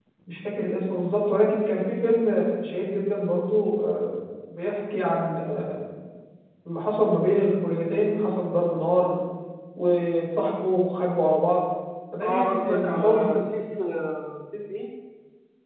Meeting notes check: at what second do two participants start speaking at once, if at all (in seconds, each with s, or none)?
12.2 s